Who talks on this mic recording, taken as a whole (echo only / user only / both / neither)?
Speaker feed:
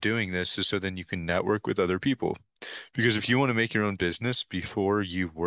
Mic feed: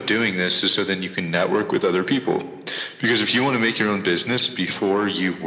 echo only